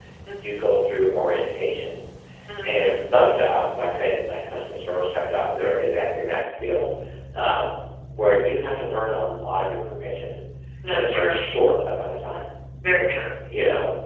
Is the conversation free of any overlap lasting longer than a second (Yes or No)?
Yes